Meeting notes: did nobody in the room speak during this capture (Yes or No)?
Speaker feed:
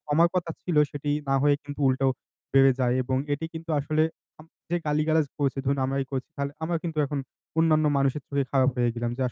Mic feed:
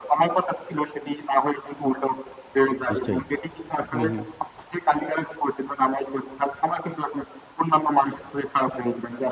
No